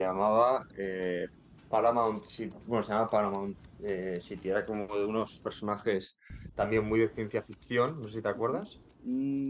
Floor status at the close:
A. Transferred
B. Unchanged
A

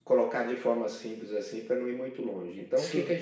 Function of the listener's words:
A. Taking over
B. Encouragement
B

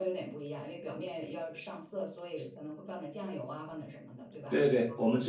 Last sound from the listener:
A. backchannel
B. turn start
B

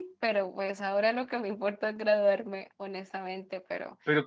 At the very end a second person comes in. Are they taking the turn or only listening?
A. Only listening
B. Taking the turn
B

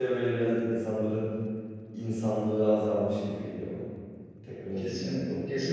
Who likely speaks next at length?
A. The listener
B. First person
A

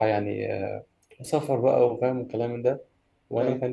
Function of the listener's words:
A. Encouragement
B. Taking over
A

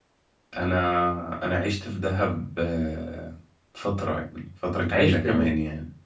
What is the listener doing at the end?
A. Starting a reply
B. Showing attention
B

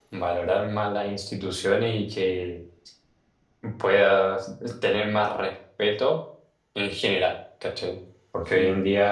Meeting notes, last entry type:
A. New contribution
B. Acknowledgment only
B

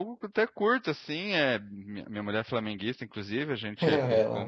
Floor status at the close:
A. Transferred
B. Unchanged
B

